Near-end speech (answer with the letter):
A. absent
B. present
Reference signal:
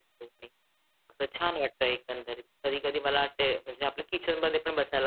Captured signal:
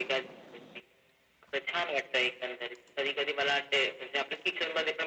A